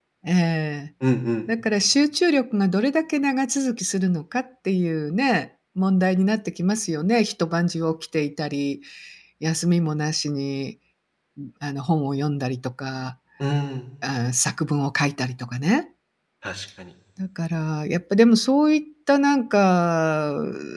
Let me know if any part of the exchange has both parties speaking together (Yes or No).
No